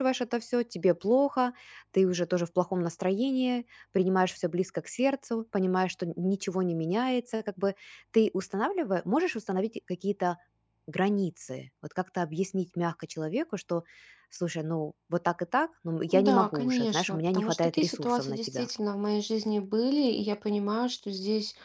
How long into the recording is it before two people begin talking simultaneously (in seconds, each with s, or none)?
16.1 s